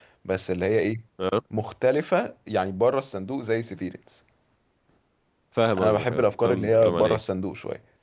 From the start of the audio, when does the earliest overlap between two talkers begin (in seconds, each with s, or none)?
5.8 s